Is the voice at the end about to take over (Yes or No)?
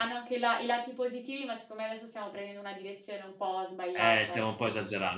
Yes